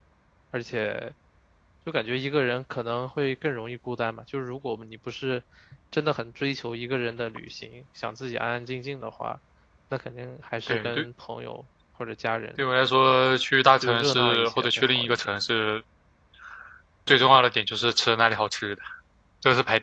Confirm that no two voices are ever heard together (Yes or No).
No